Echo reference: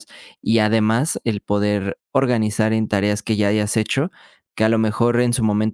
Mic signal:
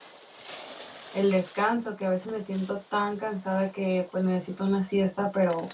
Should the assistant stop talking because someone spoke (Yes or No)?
Yes